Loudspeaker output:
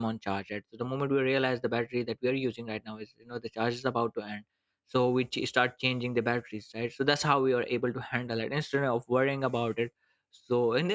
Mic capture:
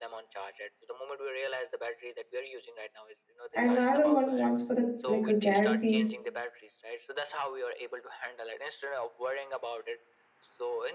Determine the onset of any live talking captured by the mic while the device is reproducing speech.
3.5 s

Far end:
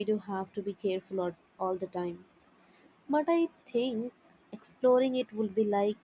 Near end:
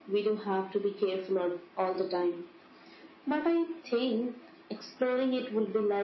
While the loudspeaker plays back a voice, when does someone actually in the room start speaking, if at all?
none

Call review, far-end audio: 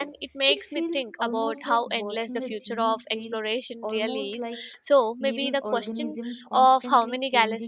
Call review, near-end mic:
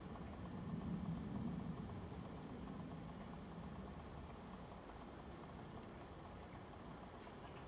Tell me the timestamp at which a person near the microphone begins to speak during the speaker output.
none

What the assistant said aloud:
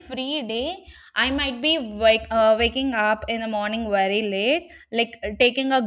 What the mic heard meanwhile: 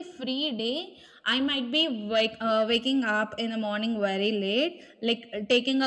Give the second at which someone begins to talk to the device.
none

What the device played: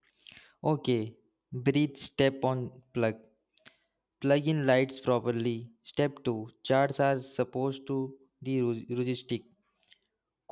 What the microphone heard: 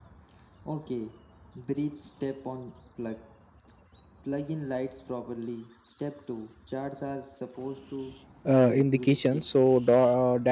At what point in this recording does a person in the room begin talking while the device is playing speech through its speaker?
8.4 s

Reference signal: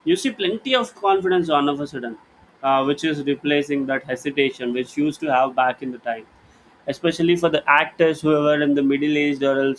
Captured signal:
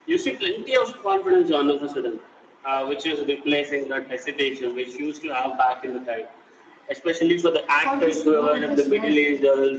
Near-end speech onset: 7.7 s

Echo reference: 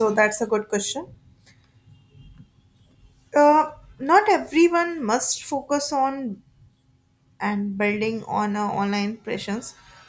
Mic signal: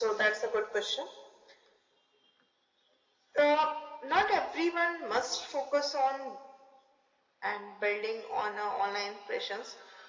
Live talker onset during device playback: none

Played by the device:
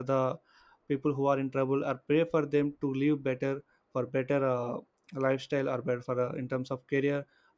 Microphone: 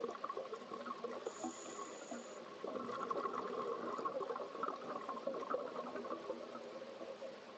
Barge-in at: none

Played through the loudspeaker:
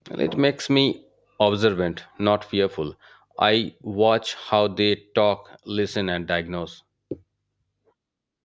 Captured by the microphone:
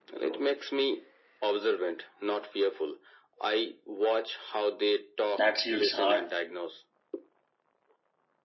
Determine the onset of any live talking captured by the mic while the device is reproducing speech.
5.3 s

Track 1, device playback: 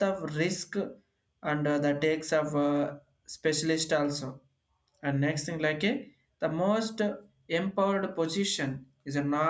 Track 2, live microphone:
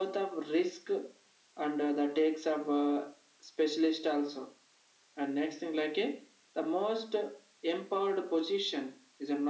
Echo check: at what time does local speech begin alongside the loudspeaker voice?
none

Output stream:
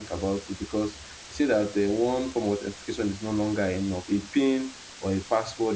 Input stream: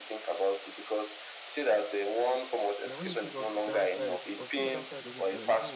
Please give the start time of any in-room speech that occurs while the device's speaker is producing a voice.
2.8 s

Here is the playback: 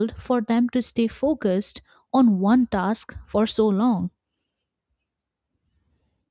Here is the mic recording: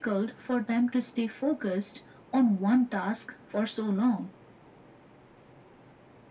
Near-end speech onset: none

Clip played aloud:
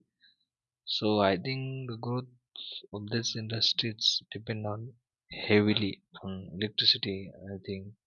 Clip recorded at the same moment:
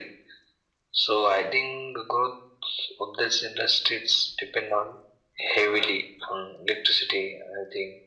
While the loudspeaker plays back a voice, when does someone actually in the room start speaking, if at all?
none

